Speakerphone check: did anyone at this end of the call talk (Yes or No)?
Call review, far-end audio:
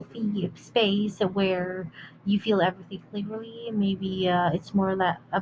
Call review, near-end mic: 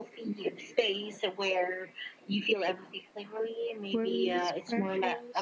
Yes